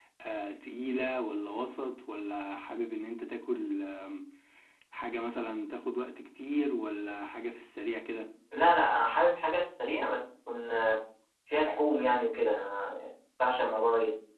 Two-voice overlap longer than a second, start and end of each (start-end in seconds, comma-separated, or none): none